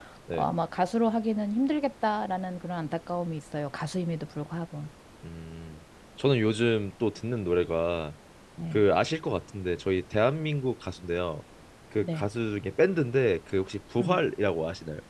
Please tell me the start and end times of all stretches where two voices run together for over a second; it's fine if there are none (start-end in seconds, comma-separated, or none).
none